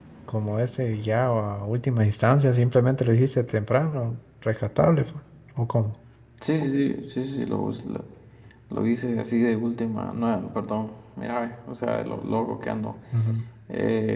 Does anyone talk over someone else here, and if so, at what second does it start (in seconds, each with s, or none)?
none